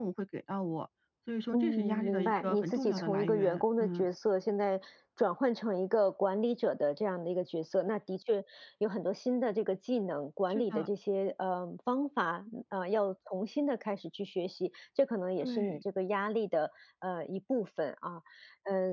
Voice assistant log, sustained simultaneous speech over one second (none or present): present